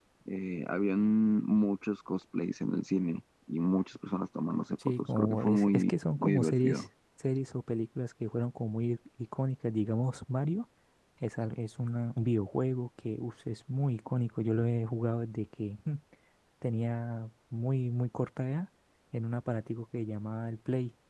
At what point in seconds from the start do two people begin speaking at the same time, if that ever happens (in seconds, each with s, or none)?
4.8 s